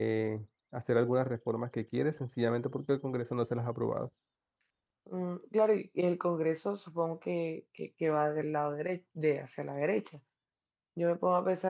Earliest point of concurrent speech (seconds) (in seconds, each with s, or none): none